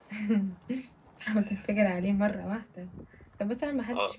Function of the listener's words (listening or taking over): listening